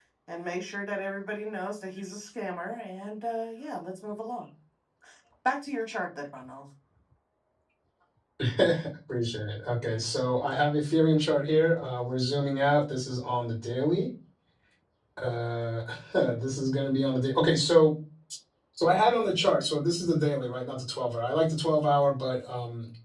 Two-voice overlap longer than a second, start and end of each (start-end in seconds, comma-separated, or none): none